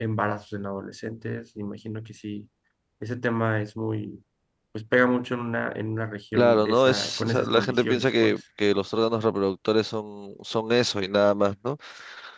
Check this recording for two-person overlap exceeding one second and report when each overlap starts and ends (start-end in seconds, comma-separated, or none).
6.3-8.4